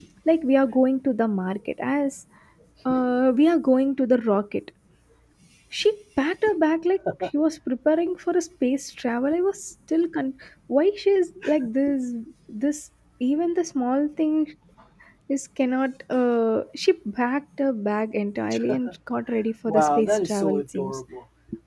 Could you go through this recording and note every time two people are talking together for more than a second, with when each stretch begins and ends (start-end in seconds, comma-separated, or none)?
19.7-21.0